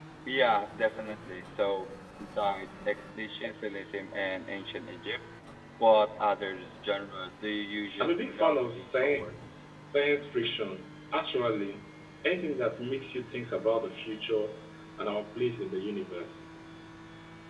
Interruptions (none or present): present